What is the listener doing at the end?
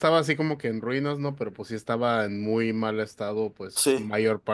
listening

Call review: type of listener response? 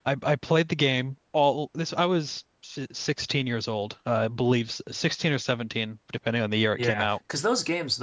taking over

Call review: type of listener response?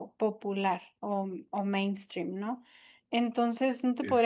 listening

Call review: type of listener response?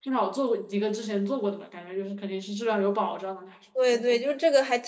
taking over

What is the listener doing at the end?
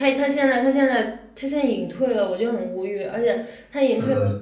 listening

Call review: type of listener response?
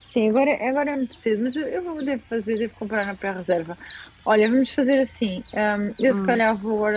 listening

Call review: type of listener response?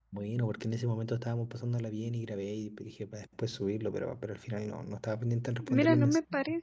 taking over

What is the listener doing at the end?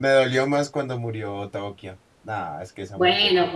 taking over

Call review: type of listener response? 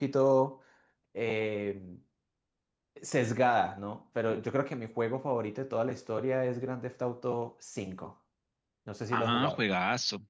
taking over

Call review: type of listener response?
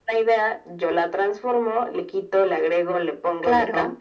taking over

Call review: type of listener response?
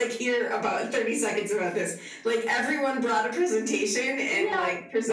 taking over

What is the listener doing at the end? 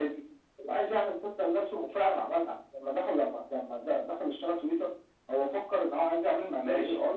taking over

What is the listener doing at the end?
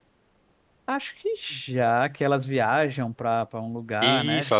taking over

